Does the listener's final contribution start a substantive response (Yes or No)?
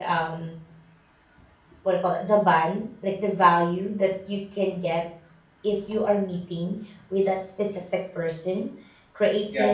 No